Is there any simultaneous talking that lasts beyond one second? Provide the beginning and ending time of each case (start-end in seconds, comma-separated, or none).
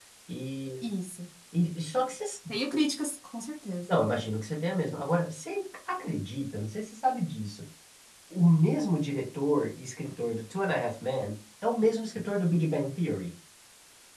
none